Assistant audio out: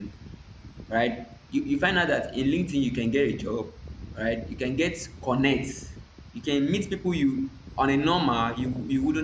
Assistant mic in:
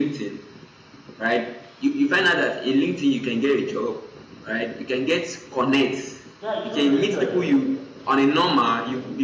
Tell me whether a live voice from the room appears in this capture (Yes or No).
Yes